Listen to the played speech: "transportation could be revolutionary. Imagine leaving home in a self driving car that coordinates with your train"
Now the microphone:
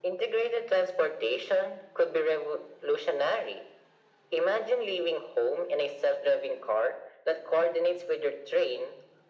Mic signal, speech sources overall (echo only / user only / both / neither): echo only